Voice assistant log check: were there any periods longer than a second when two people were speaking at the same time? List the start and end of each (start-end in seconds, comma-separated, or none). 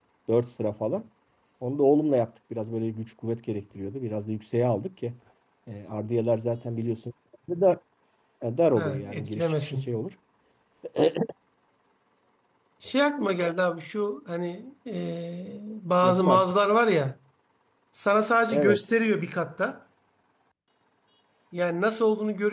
8.8-10.0